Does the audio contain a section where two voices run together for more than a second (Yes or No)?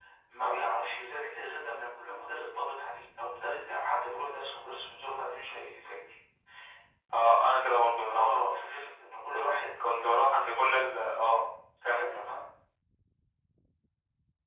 No